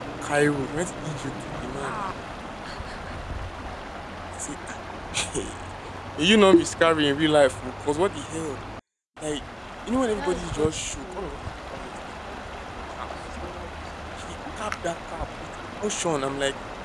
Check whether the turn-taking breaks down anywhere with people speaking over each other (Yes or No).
Yes